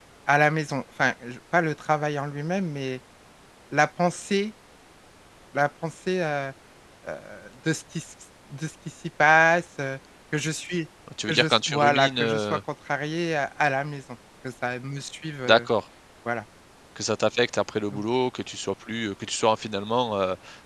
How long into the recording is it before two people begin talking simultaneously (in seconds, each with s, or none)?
11.1 s